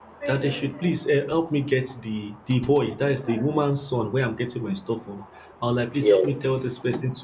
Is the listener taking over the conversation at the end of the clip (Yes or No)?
No